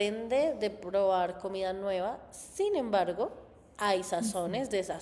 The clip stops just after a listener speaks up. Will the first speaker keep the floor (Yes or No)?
Yes